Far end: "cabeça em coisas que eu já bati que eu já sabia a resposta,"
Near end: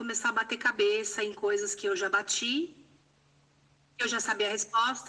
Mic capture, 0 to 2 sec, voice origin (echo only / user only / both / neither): echo only